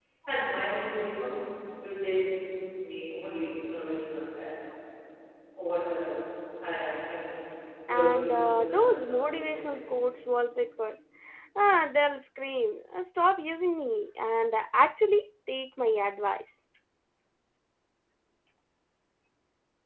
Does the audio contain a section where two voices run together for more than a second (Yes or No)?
Yes